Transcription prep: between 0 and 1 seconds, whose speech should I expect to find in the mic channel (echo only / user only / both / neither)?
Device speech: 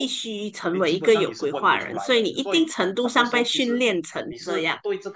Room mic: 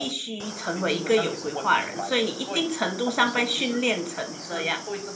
echo only